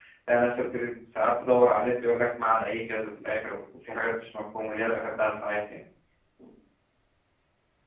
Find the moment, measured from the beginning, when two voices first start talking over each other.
none

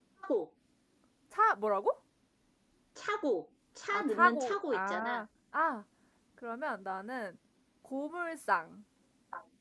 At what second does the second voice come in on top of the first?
3.9 s

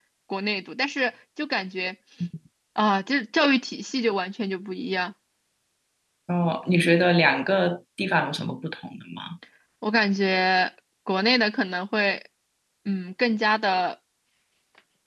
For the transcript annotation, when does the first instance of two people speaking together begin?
none

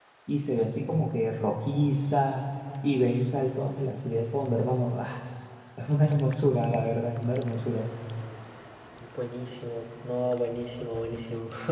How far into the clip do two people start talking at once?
none

